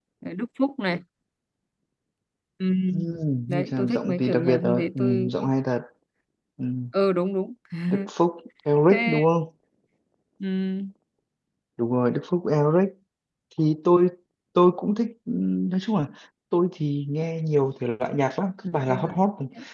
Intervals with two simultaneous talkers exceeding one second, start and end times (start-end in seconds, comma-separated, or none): 3.5-5.3